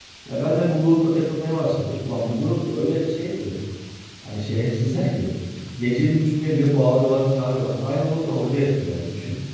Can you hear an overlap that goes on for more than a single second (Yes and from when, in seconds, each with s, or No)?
No